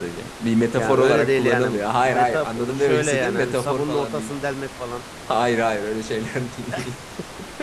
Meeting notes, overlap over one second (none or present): present